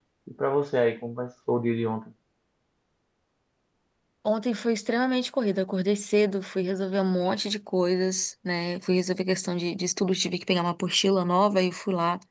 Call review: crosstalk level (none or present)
none